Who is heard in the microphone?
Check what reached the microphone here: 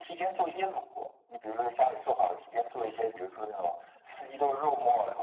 echo only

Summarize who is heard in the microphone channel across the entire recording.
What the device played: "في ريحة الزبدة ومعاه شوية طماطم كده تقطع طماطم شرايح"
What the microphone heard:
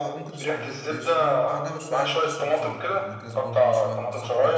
both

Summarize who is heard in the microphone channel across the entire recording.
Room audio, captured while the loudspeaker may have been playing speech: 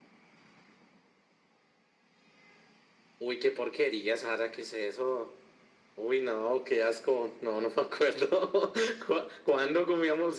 echo only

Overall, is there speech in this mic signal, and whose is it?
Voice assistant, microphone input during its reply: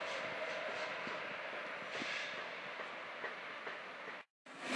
neither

